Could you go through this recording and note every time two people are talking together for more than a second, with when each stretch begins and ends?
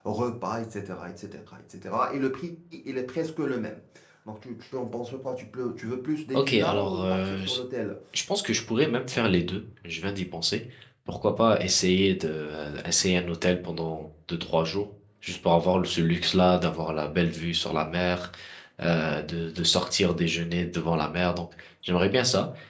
6.3-7.6

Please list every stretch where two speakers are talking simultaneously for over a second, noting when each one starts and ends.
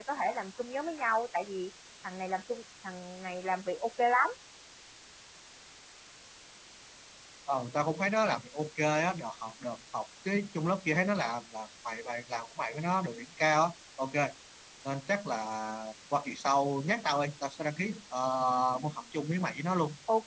none

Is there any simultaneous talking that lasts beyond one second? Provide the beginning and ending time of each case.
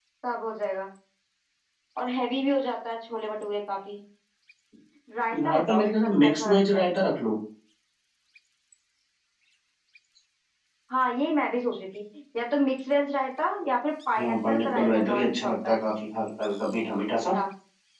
5.4-6.8, 14.2-15.8

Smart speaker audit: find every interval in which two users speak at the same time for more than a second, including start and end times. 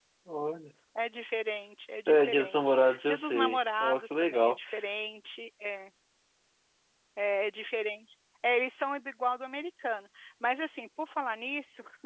2.1-4.6

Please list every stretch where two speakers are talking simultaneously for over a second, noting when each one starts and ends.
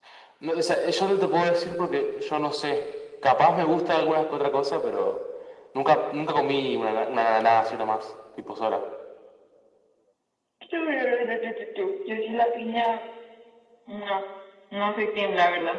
none

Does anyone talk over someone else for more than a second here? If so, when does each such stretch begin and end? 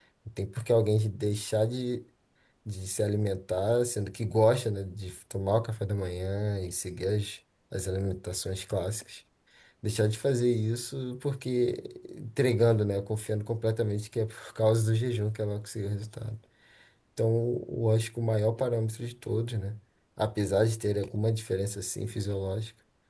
none

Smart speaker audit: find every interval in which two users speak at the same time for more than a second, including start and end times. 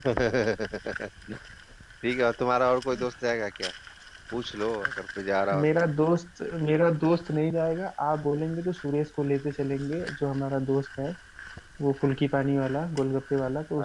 none

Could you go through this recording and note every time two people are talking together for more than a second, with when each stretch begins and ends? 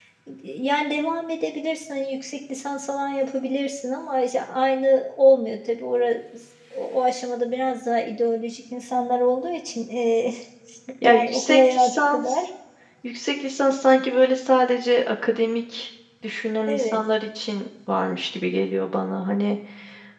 11.0-12.4

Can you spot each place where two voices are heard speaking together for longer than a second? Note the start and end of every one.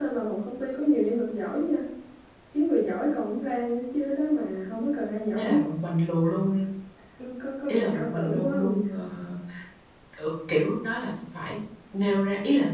7.7-9.0

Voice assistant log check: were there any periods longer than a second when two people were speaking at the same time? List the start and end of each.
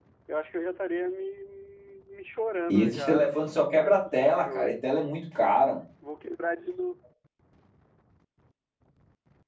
2.7-4.9

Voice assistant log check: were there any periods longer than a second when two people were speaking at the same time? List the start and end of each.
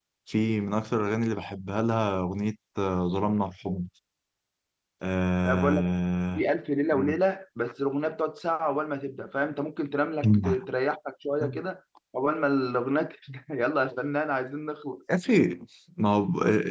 none

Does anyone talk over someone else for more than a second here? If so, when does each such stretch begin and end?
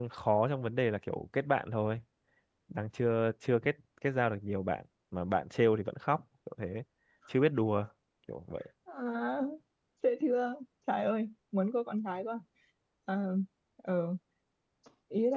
none

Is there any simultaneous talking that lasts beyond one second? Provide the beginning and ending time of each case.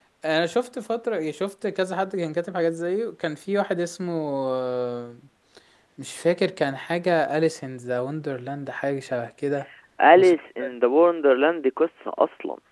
none

